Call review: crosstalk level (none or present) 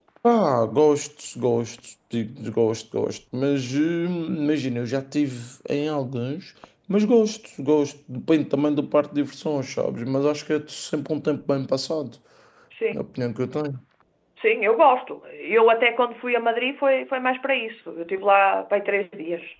none